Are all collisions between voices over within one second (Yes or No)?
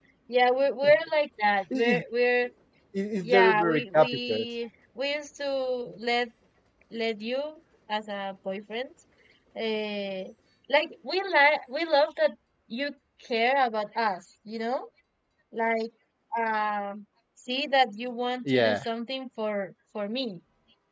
No